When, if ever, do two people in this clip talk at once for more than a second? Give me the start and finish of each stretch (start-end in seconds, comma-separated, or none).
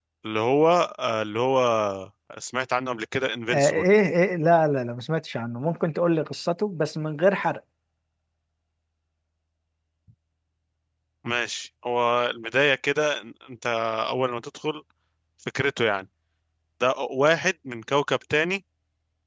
none